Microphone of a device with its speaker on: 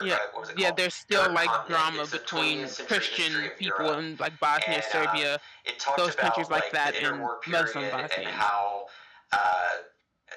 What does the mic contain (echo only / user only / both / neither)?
both